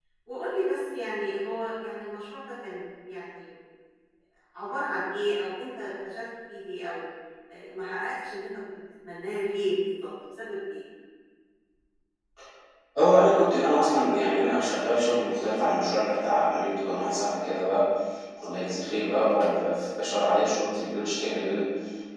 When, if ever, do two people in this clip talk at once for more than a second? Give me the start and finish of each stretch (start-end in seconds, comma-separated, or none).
none